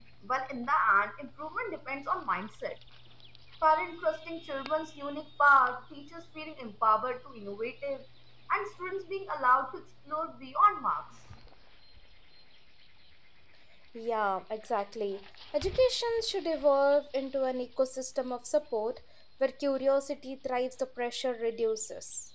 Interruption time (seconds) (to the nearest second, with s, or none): none